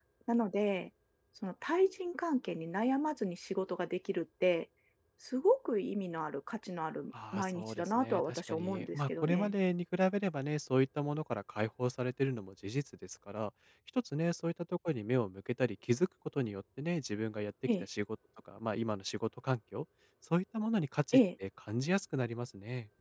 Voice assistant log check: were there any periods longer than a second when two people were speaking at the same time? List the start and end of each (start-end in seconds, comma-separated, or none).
7.3-9.5